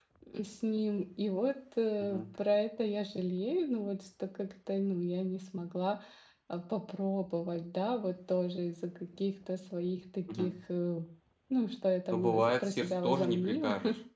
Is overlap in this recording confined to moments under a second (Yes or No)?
No